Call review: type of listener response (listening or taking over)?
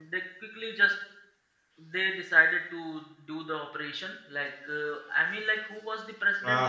taking over